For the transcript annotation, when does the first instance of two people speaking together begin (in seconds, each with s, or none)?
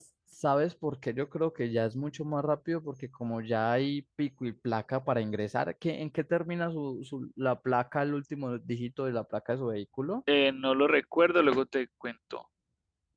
none